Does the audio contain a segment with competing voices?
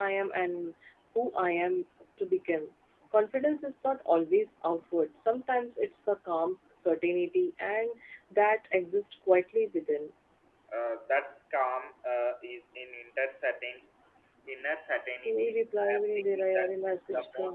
Yes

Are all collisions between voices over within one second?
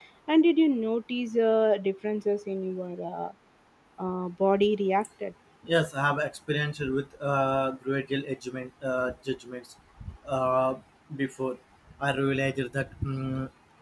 Yes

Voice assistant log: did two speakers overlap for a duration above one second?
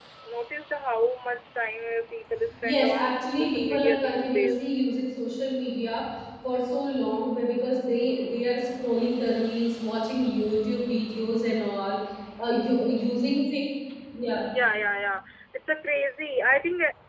Yes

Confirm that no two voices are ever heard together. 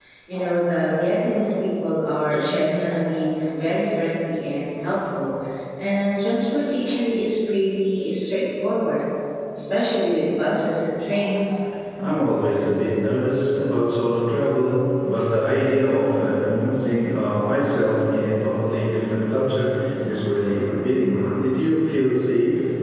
Yes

